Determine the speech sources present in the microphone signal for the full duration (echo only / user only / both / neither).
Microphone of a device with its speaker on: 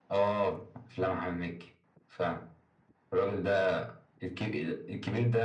echo only